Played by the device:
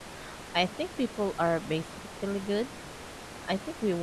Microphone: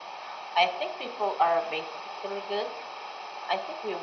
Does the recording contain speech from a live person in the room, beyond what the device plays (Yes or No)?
No